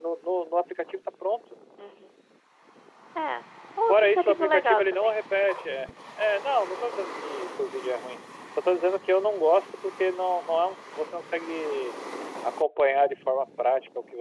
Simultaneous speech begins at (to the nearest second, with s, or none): 4 s